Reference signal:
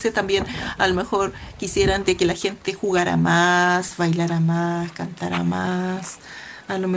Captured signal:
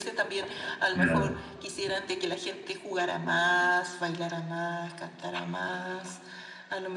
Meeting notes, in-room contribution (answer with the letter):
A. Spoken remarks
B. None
A